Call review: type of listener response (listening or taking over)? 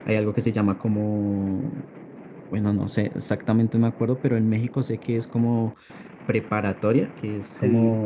listening